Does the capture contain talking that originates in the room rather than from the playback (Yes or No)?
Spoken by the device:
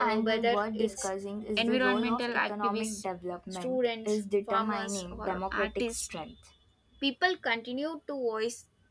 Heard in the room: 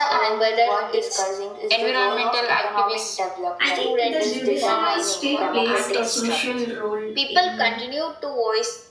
Yes